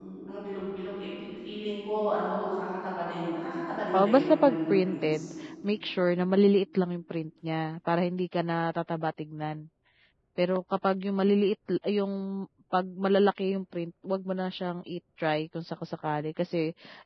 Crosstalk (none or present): present